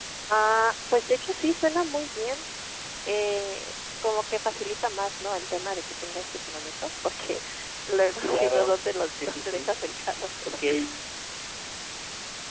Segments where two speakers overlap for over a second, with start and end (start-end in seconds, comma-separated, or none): 8.3-9.7